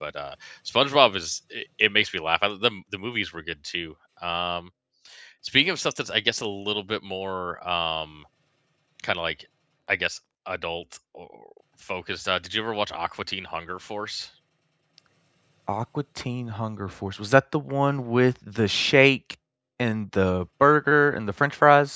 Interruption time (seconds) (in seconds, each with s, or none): none